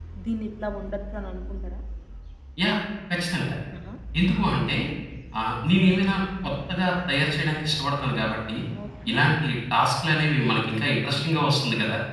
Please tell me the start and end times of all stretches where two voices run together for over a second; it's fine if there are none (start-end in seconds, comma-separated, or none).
none